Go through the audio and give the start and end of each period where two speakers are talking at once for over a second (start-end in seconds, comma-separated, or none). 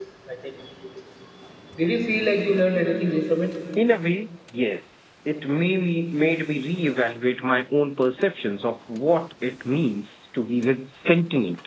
none